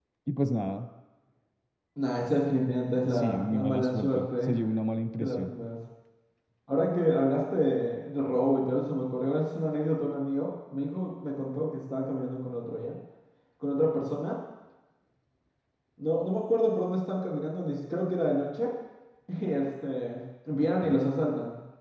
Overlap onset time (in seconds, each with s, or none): 3.0 s